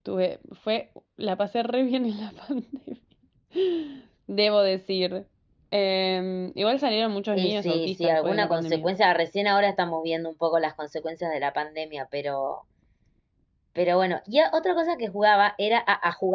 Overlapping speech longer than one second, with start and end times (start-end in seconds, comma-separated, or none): 7.3-8.9